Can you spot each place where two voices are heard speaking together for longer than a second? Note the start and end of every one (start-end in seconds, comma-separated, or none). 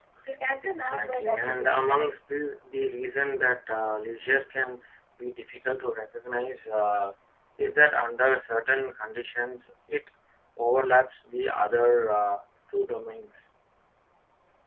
0.6-2.1